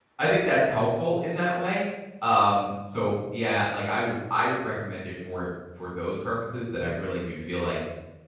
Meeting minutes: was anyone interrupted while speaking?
No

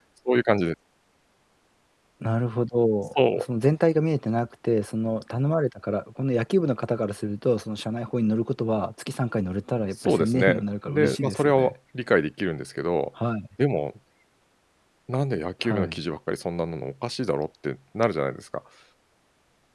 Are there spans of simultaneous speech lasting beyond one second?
Yes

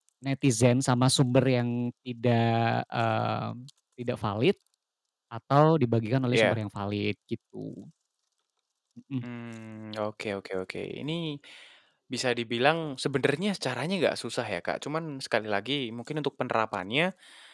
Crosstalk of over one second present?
No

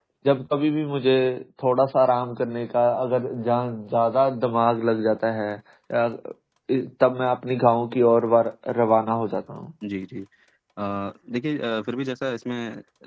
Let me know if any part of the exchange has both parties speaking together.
No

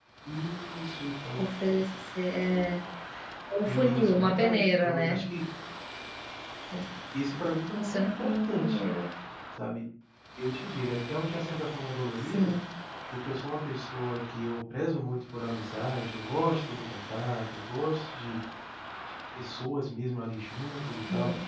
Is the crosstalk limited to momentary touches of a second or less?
No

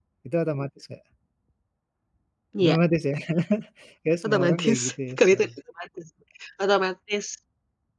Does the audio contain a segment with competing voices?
Yes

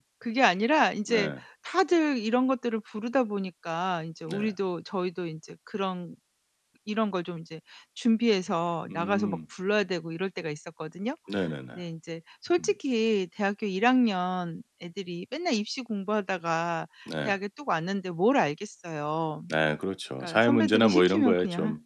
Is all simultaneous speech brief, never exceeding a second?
No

